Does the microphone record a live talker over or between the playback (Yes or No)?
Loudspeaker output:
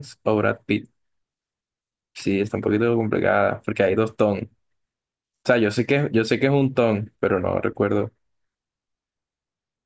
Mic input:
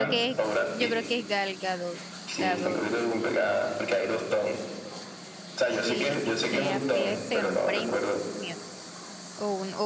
Yes